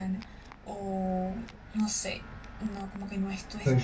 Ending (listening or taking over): taking over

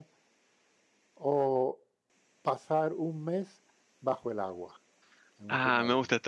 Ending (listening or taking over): taking over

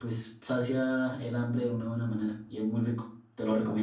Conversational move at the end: taking over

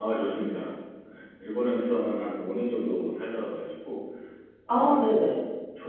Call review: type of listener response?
listening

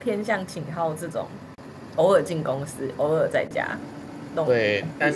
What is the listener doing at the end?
taking over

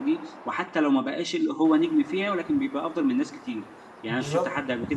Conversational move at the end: listening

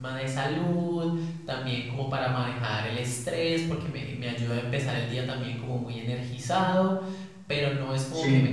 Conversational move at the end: listening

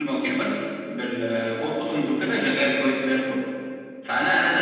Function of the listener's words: listening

